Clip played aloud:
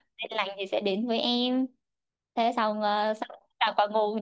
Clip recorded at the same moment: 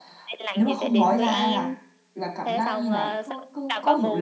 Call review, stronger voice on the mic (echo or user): user